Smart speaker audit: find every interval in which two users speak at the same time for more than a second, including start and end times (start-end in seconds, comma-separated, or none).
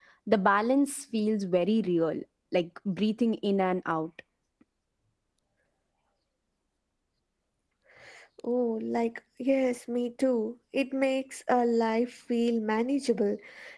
none